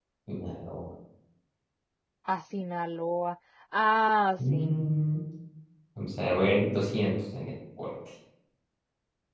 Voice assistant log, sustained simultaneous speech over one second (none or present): none